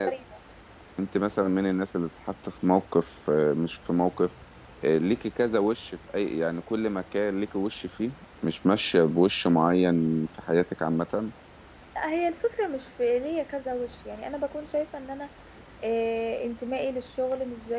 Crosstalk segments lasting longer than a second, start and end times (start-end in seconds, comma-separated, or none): none